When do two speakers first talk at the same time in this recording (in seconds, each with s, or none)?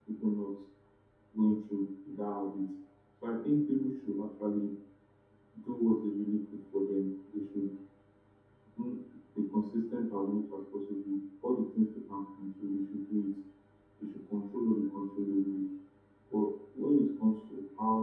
none